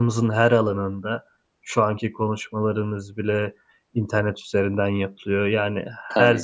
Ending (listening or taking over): listening